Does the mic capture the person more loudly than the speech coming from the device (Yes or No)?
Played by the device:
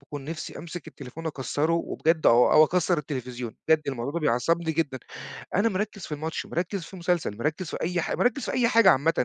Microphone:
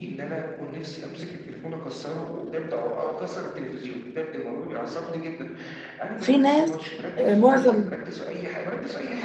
Yes